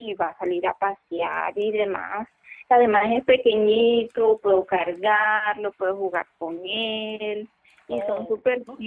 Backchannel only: No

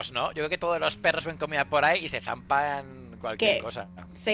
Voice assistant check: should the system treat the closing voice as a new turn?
Yes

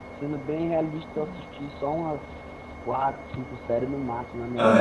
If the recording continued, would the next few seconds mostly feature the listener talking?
No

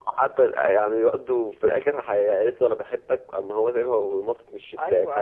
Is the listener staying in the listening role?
No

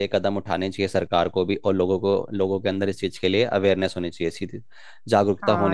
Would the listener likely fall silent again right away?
No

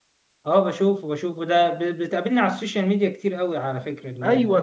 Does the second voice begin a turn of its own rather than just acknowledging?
Yes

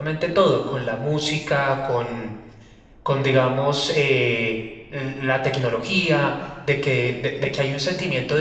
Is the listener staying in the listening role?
Yes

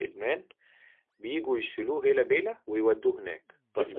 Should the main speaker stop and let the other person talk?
Yes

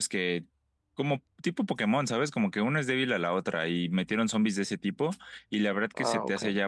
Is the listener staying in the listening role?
Yes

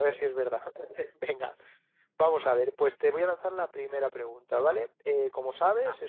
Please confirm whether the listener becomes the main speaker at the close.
No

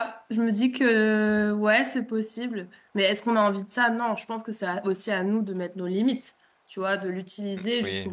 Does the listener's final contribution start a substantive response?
No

